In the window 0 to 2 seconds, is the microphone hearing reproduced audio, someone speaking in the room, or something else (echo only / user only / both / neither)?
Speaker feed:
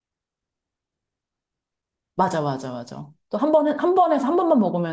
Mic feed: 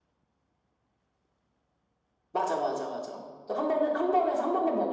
neither